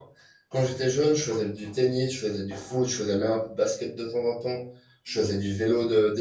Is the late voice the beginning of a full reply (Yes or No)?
No